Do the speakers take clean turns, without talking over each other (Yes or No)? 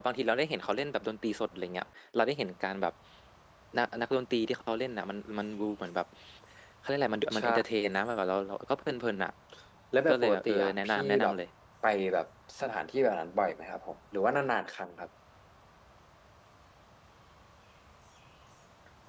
No